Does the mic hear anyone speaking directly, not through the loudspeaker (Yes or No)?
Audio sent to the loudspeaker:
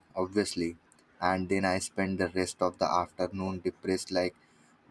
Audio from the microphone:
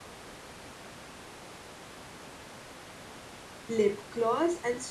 Yes